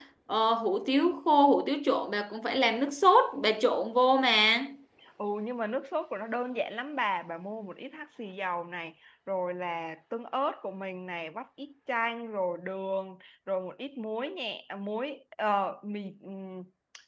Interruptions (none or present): none